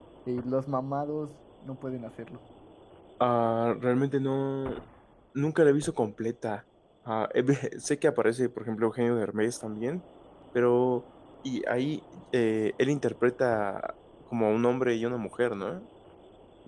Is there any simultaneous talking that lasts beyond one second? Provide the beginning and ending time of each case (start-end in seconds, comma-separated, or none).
none